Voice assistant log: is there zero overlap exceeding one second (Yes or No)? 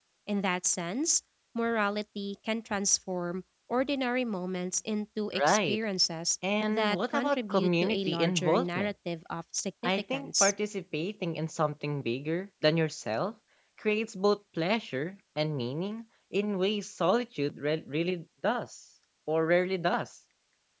No